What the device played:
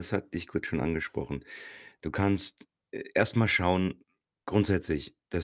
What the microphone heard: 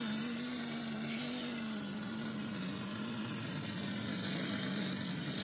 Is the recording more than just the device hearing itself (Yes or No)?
No